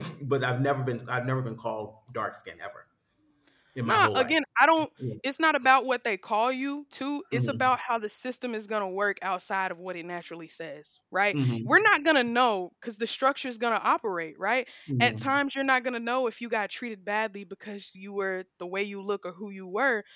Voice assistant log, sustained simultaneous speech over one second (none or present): none